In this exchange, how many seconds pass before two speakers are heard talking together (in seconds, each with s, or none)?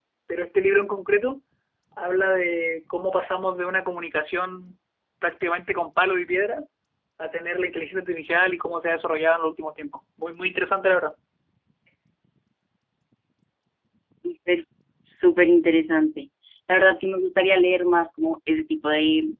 none